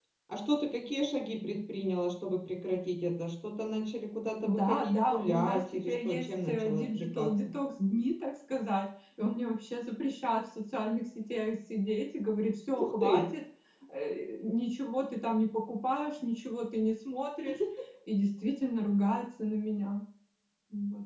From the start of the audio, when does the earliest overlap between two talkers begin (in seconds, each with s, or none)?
4.4 s